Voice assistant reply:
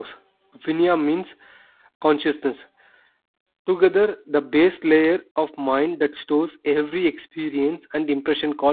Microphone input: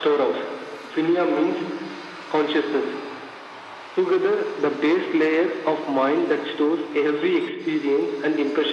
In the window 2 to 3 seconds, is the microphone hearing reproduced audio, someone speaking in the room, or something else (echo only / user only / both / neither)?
echo only